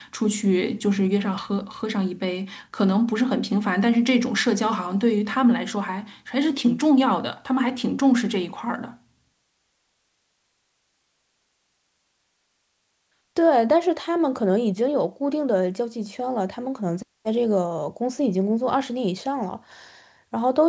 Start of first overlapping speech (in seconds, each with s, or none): none